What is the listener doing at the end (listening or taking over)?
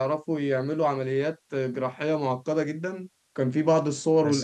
listening